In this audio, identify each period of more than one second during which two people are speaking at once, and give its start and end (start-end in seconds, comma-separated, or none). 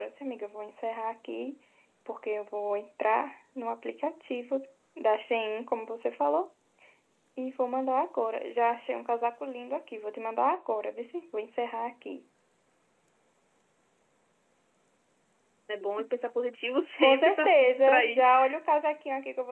17.0-18.2